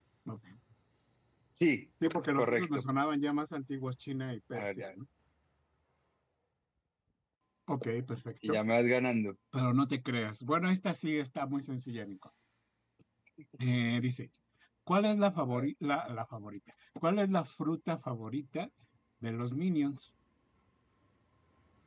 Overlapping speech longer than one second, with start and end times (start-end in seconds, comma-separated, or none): none